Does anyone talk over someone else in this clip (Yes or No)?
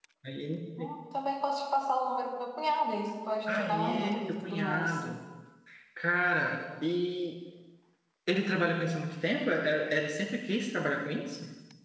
Yes